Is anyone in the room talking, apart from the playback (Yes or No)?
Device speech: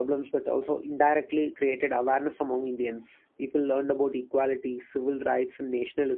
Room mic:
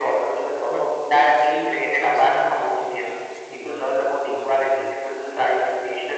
Yes